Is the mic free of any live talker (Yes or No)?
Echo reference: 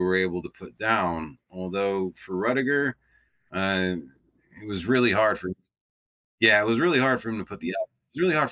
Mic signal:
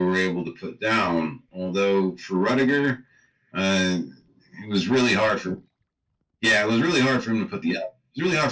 Yes